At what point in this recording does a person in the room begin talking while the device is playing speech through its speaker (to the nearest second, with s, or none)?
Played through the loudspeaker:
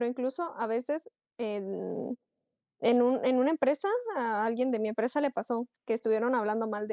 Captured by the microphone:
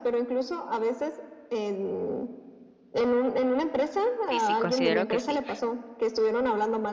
4 s